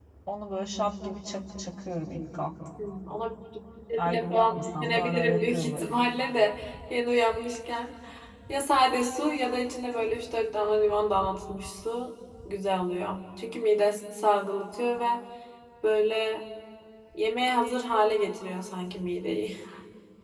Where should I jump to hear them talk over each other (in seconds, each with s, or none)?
4.0 s